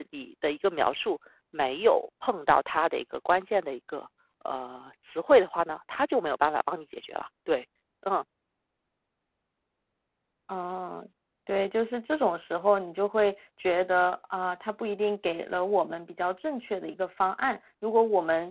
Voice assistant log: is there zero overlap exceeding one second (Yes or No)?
Yes